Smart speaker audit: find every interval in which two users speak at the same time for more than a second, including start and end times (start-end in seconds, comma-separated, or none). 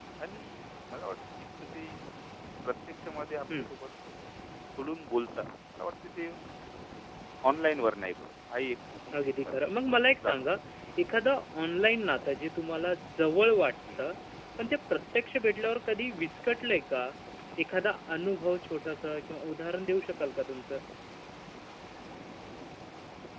none